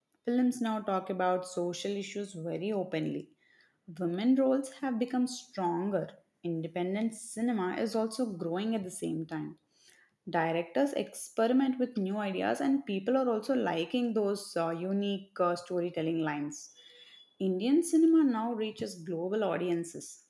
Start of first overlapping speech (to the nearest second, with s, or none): none